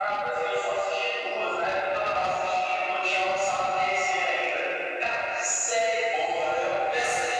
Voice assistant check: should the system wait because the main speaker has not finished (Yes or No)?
Yes